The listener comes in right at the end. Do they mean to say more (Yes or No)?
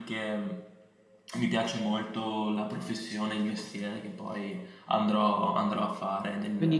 Yes